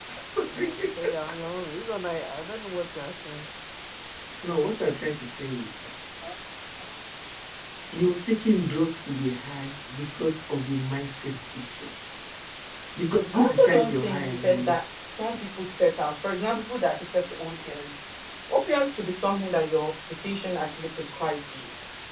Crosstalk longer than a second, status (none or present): present